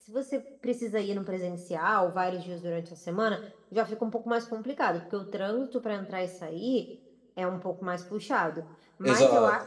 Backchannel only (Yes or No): Yes